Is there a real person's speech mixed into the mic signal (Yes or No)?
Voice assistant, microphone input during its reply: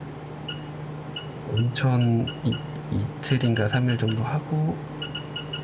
Yes